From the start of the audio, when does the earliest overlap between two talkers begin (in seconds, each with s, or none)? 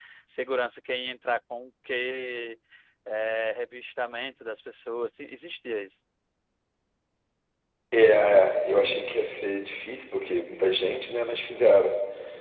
none